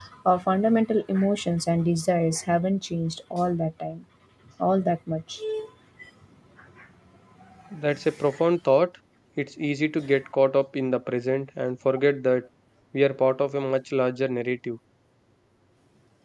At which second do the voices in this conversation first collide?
none

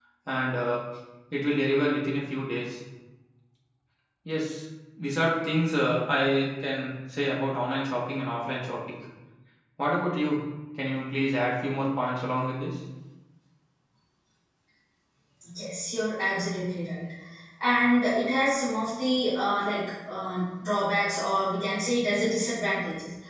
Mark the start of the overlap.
none

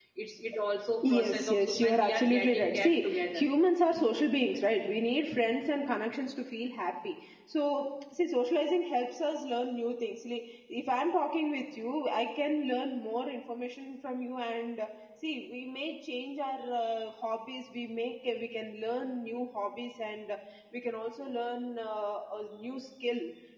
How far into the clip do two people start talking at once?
1.1 s

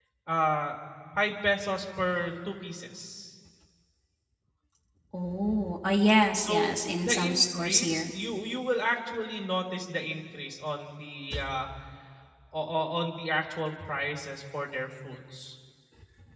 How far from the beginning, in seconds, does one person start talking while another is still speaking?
6.4 s

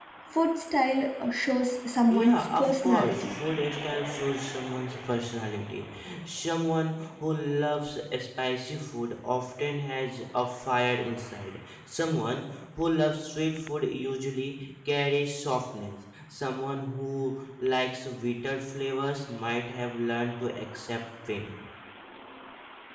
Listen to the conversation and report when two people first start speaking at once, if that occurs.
2.1 s

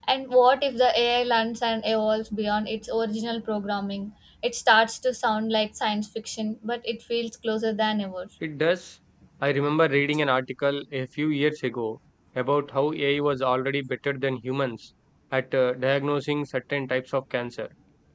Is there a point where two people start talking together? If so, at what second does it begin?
none

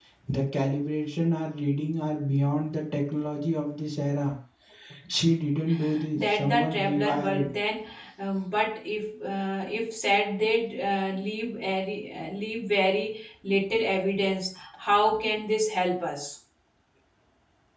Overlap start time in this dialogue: 6.1 s

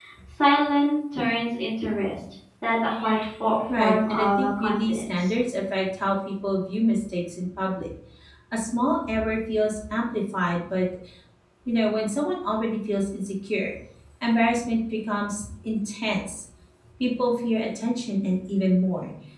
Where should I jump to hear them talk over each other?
3.7 s

